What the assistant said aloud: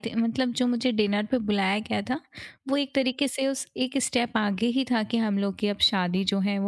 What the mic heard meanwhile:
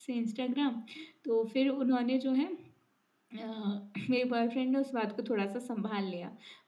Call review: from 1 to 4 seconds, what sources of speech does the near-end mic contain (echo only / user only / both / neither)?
user only